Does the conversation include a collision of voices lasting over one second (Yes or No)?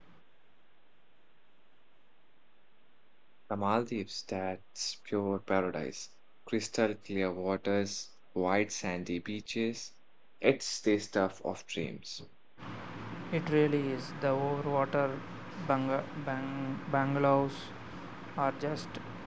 No